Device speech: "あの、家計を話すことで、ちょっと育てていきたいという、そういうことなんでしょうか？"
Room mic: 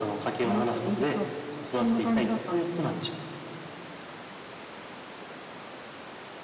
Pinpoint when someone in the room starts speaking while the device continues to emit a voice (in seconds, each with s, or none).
0.4 s